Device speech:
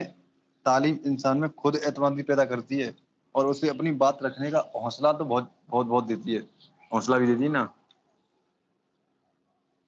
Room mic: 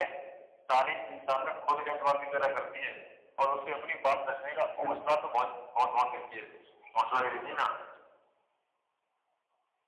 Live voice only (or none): بالکل